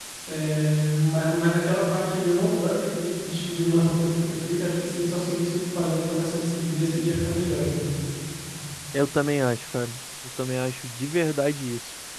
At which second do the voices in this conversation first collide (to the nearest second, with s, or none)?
none